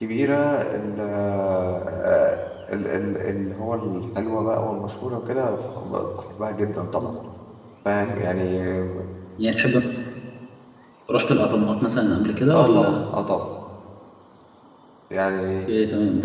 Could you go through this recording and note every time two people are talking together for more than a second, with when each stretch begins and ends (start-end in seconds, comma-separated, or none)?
none